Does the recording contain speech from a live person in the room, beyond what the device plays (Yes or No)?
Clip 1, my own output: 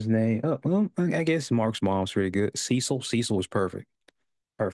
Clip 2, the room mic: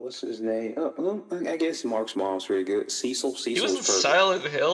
Yes